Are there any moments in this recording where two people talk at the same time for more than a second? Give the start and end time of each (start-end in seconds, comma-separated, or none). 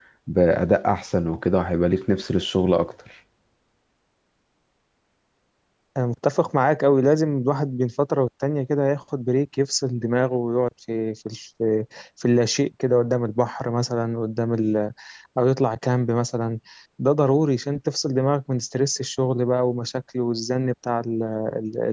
none